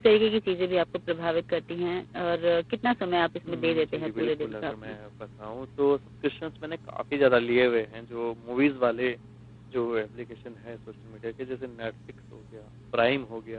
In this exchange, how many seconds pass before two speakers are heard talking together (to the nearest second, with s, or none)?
3 s